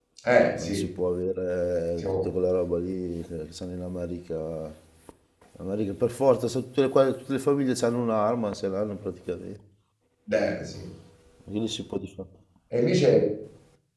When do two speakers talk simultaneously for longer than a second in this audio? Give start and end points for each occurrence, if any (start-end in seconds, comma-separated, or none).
none